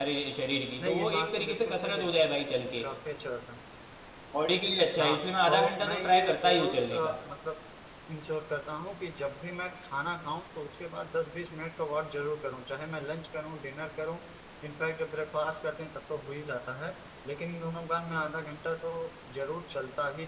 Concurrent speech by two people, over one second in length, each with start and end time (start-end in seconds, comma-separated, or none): 0.8-2.2, 5.0-7.2